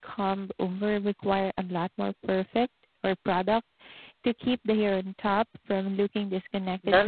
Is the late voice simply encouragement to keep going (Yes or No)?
No